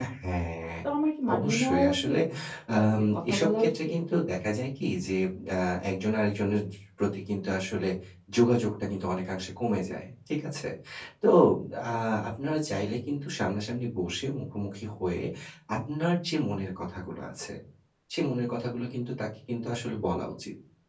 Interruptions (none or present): present